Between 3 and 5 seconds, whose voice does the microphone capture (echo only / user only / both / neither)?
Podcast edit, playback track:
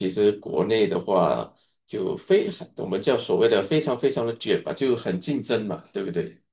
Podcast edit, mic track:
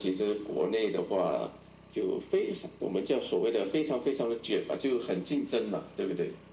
echo only